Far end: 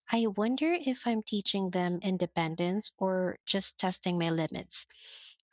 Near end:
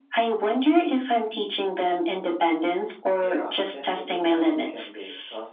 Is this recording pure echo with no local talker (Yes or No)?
No